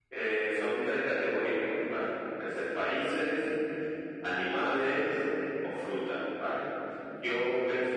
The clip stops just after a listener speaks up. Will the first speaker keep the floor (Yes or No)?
Yes